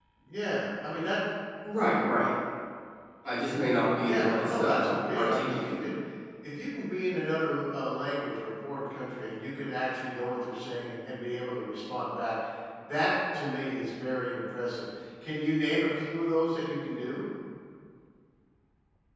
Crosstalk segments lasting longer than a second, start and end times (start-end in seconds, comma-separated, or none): 4.0-5.7